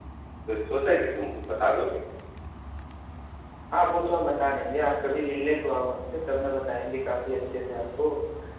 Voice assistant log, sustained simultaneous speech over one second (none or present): none